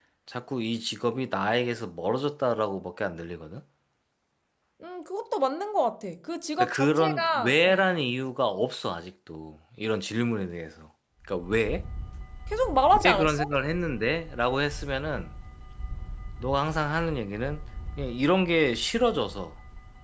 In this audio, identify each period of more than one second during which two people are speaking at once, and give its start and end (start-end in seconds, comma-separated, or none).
6.6-7.8